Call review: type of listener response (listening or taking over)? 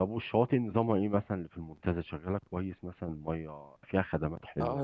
taking over